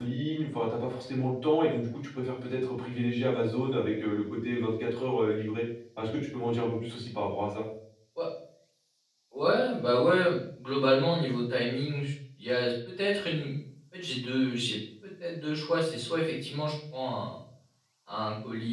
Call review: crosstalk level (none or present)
none